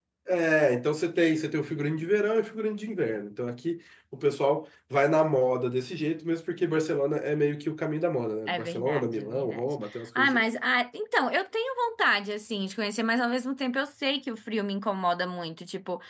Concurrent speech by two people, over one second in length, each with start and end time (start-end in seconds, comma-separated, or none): 8.5-10.4